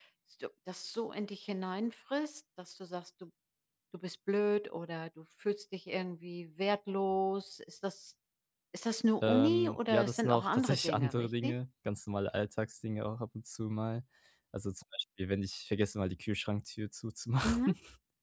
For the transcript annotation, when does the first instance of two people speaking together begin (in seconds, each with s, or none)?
9.2 s